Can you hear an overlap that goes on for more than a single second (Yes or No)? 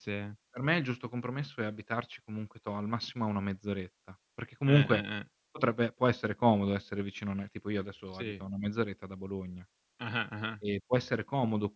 No